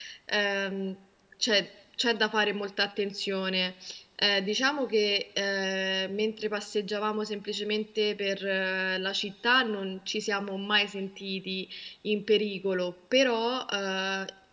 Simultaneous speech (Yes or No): No